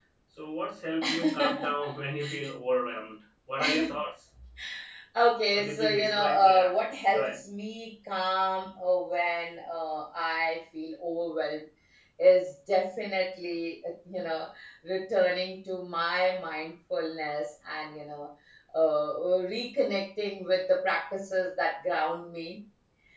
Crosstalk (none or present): present